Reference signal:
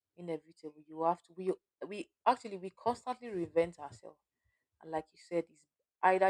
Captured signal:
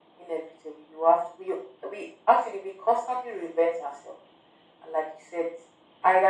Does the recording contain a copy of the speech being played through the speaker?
Yes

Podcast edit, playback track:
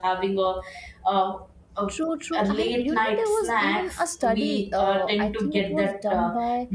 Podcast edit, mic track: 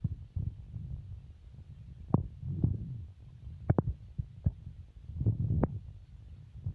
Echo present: No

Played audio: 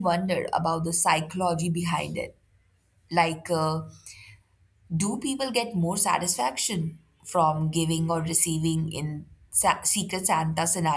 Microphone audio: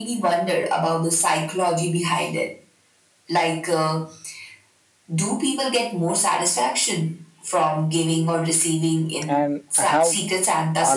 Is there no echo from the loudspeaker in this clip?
No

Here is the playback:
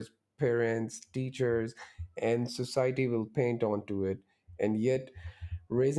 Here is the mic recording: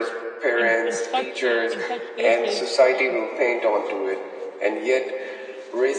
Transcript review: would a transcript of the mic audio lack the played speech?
No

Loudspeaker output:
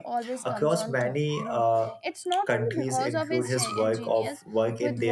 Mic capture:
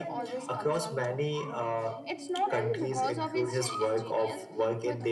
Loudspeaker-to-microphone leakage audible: Yes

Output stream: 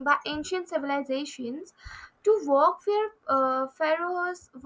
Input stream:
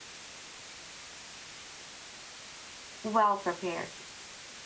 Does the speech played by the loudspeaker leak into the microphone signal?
No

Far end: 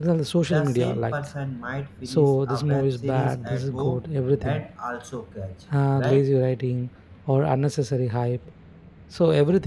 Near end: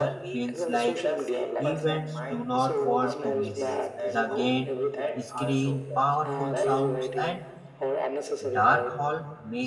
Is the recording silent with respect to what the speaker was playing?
No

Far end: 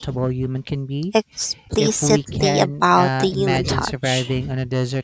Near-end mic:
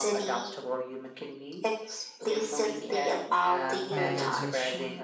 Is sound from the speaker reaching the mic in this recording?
Yes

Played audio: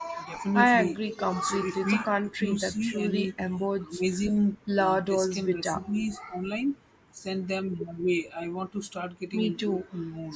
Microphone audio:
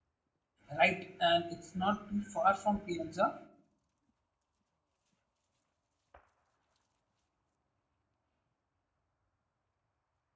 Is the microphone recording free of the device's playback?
Yes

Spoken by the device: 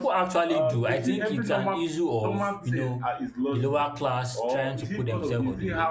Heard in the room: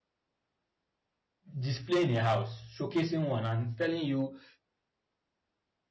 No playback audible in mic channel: Yes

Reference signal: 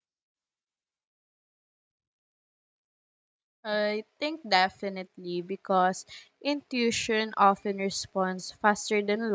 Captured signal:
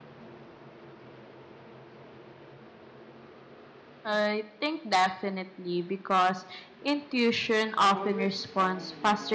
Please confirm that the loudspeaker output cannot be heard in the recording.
No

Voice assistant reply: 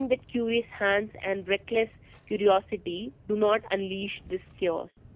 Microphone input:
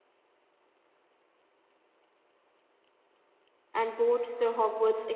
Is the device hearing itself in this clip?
No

